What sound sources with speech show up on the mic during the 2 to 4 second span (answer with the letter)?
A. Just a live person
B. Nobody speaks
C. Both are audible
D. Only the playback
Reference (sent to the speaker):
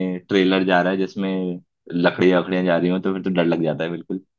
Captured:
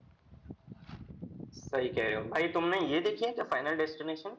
A